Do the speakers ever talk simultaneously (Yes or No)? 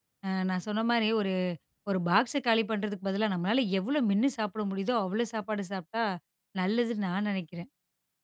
No